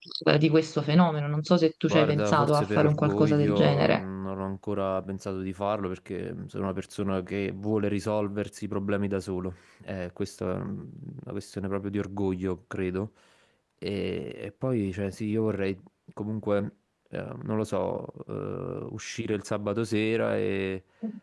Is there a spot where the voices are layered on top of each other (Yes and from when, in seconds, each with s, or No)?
Yes, from 1.9 s